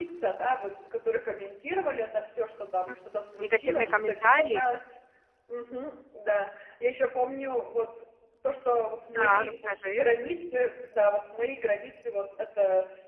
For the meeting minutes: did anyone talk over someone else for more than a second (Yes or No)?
Yes